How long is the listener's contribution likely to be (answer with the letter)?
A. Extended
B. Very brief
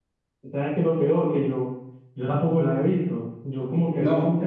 B